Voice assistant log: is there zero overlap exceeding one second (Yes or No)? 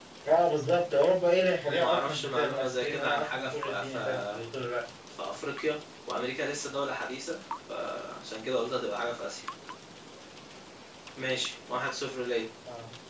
No